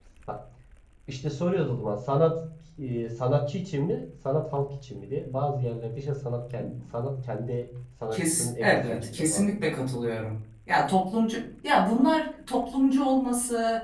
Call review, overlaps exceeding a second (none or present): present